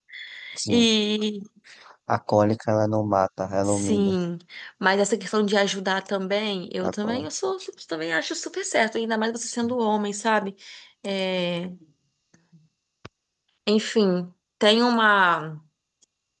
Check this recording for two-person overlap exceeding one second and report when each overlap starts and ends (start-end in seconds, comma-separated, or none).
none